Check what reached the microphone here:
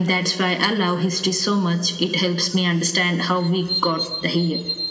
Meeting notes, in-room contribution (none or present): none